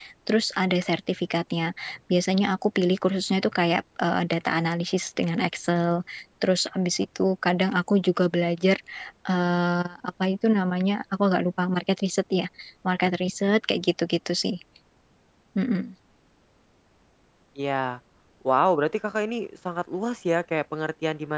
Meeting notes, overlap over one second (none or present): none